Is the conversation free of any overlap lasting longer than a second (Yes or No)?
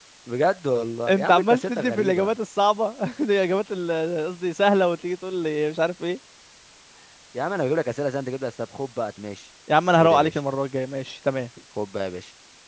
No